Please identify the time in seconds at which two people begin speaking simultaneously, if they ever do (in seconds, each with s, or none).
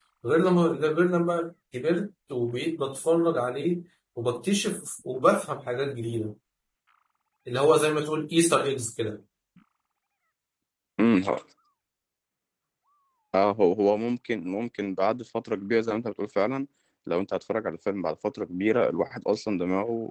none